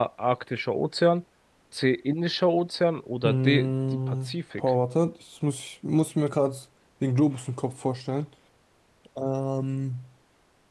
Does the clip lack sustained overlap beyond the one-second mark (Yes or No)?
No